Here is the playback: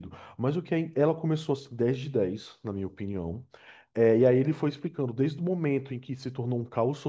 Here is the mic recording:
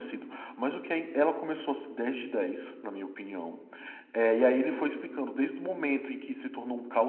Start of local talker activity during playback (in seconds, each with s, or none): none